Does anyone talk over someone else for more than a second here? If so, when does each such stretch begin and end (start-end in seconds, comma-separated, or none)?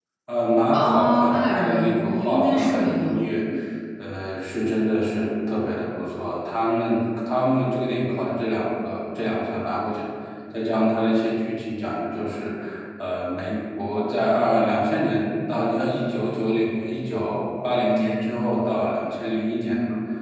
0.7-3.2